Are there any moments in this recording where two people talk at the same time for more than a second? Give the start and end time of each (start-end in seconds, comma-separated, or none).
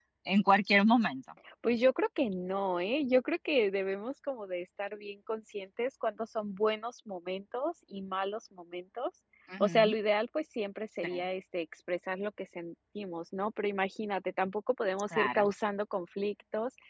none